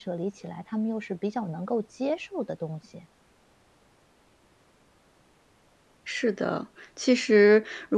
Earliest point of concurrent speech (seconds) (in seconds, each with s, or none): none